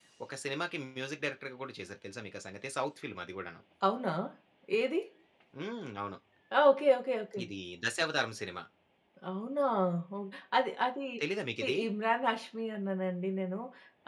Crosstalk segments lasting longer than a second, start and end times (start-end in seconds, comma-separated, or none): none